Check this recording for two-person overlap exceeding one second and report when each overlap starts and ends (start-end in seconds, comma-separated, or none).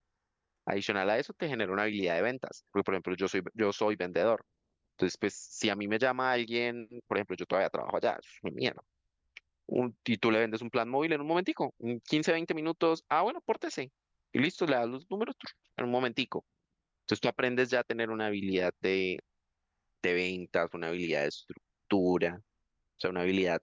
none